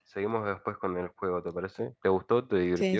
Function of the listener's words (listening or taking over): taking over